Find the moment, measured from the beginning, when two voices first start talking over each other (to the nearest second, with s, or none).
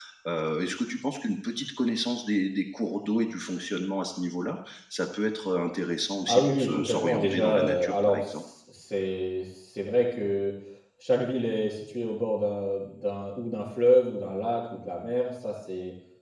6 s